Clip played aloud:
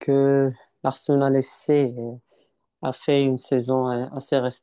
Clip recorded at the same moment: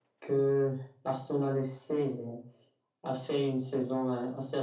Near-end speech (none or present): none